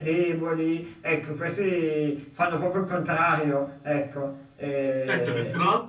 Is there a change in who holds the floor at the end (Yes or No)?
Yes